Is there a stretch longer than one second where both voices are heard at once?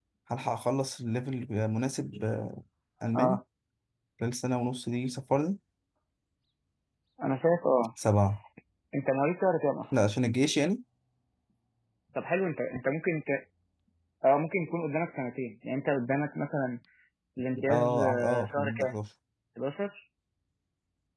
Yes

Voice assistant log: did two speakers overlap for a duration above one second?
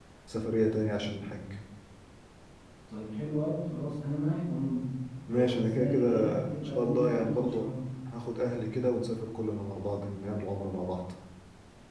Yes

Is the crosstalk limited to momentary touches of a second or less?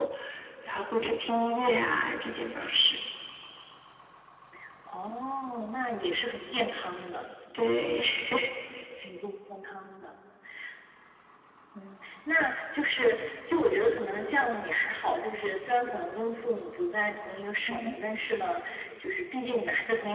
Yes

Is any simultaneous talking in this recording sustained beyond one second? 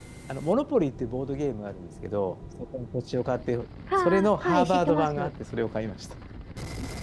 Yes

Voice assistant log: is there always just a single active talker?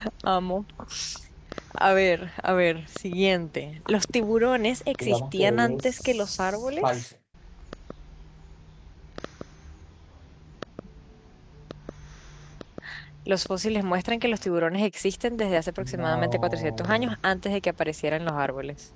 No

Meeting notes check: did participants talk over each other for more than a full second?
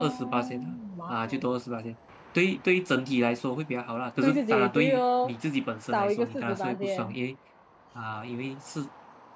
Yes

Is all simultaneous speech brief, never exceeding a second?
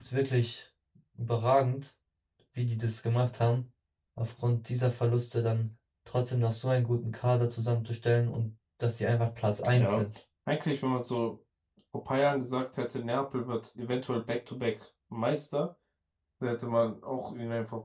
Yes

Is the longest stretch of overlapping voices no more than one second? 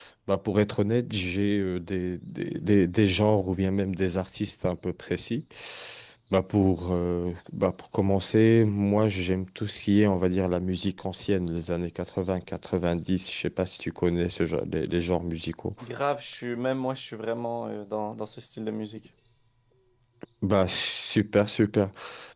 Yes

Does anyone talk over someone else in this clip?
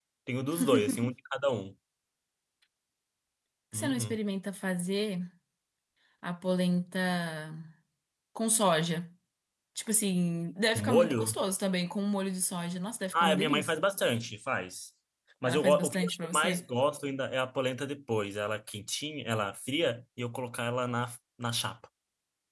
Yes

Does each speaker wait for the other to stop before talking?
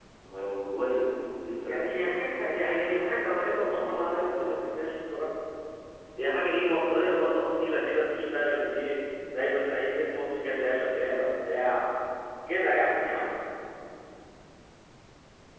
No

